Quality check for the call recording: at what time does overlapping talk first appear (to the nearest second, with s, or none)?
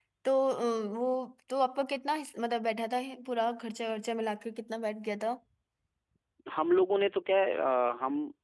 none